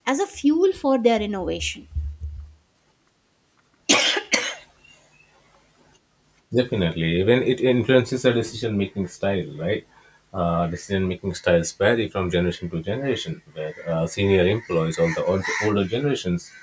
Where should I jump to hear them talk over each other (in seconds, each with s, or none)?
none